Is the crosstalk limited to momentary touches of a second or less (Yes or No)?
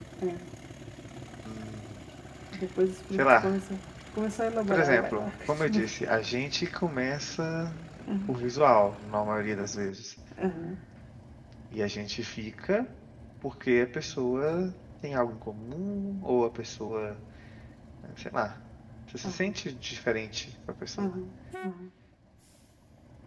No